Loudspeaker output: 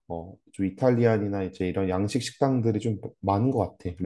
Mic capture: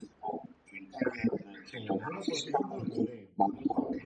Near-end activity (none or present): present